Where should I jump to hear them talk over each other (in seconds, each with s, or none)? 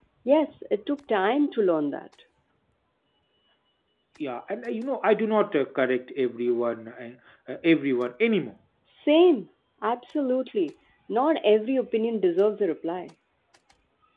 none